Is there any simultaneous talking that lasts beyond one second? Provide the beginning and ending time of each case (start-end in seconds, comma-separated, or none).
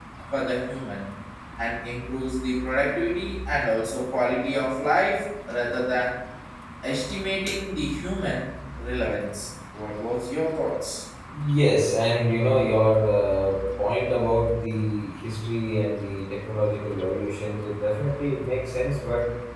none